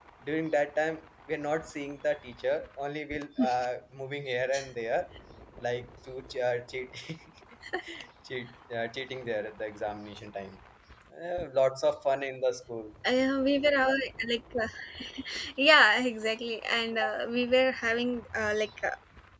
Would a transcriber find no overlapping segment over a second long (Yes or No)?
Yes